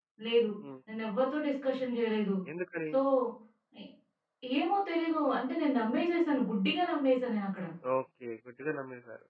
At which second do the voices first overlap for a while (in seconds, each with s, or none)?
none